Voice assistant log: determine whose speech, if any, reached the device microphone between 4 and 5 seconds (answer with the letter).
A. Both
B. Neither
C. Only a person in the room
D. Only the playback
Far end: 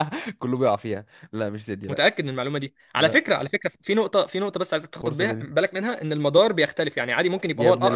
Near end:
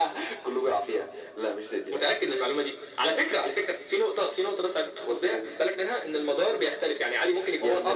D